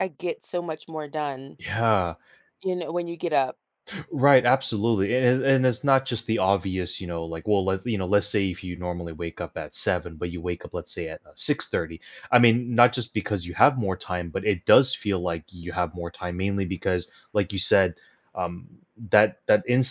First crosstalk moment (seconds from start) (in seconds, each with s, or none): none